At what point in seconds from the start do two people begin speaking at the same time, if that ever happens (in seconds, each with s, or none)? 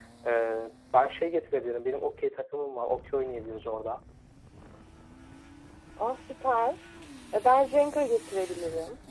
none